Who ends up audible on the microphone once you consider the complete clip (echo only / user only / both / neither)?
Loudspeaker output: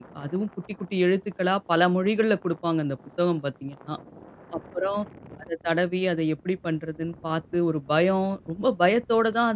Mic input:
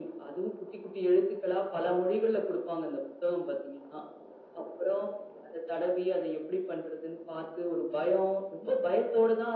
echo only